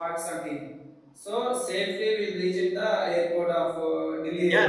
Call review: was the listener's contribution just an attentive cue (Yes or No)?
No